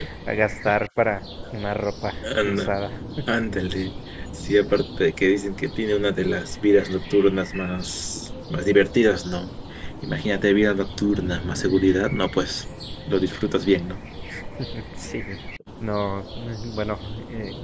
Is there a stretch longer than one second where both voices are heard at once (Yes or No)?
No